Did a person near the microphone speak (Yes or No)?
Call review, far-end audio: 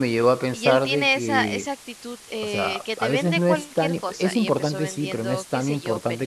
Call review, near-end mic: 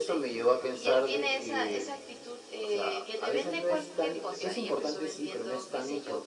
No